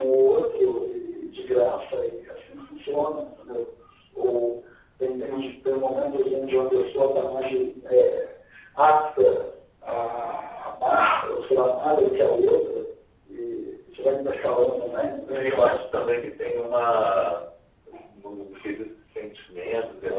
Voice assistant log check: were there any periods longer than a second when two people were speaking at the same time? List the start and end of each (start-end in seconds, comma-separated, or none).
none